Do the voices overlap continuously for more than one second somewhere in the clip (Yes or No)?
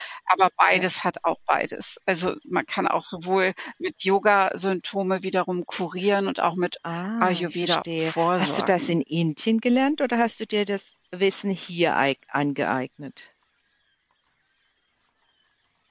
Yes